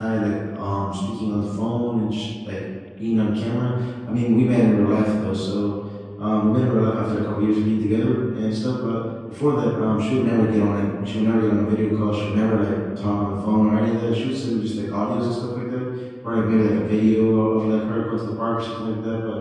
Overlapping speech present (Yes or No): No